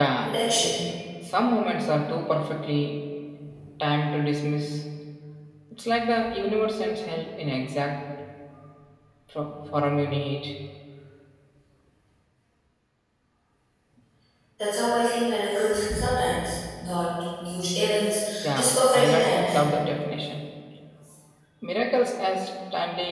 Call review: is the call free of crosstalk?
No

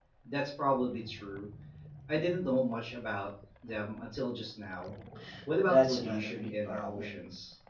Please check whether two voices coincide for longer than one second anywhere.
Yes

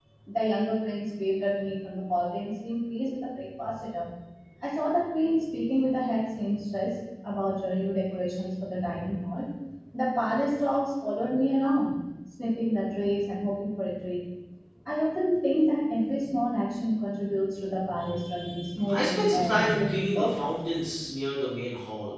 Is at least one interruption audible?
Yes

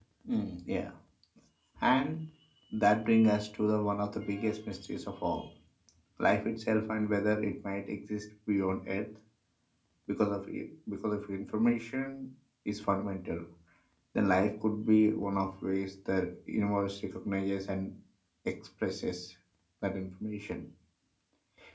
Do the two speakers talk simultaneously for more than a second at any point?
No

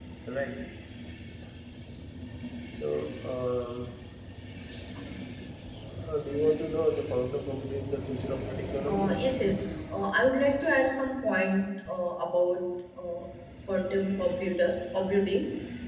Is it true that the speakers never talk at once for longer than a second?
Yes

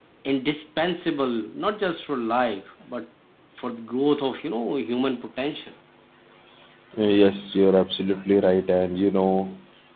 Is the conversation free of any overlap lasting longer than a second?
Yes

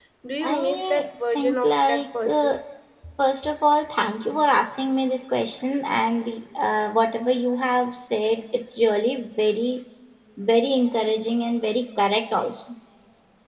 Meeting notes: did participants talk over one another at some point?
Yes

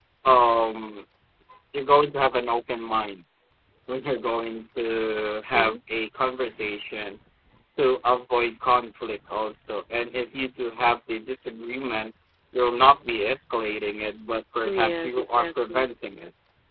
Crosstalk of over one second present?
Yes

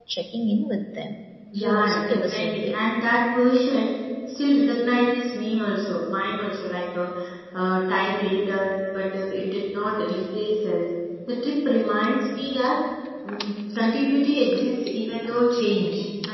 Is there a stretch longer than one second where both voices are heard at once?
Yes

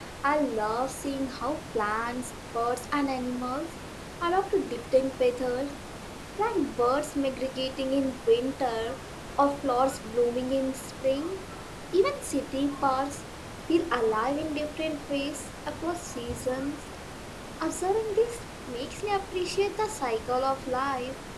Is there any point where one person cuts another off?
No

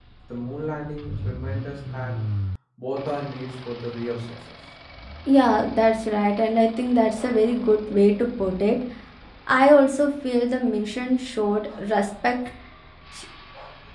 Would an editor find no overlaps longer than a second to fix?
Yes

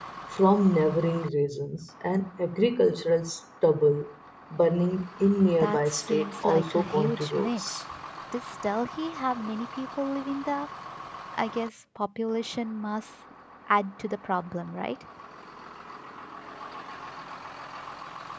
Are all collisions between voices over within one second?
No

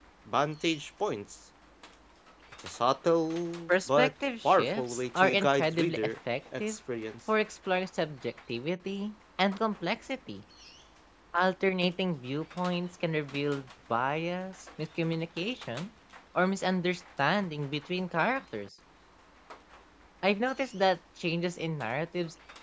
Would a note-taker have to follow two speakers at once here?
Yes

